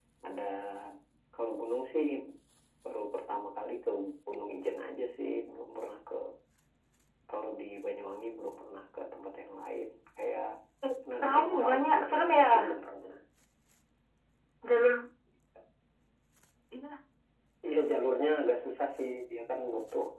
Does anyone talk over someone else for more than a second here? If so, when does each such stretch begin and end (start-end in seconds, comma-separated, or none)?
11.2-12.7